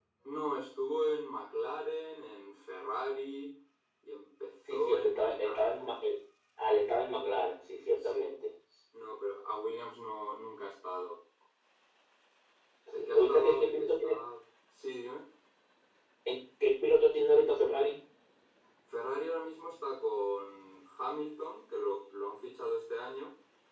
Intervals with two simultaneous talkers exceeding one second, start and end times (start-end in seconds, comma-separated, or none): 4.7-6.0, 12.9-14.2